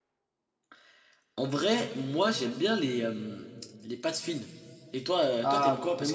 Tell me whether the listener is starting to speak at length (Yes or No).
Yes